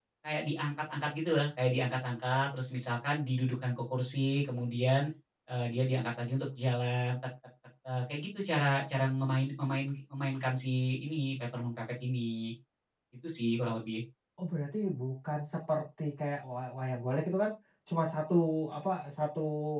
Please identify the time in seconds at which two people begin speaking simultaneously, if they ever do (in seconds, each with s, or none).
none